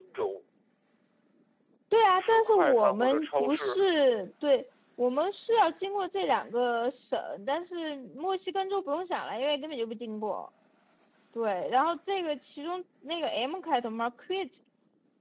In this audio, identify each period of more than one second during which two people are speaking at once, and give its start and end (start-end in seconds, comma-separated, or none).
2.2-3.8